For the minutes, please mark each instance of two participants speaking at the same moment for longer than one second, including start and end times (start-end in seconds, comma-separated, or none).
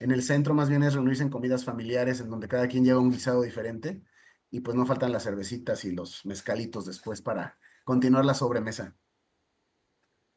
none